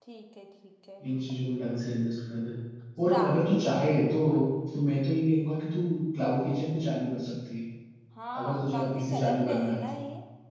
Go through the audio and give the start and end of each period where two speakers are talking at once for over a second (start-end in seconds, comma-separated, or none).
8.4-10.0